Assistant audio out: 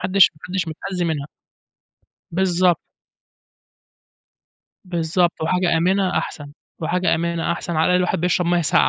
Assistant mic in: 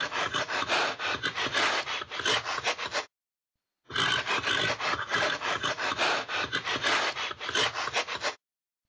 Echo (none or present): none